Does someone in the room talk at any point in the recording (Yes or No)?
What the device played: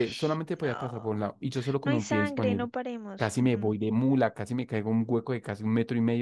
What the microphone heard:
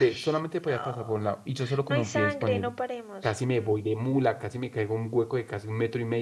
No